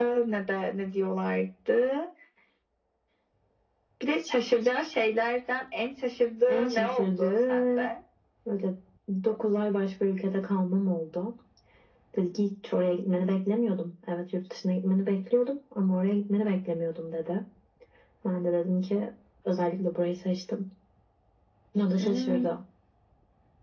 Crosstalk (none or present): present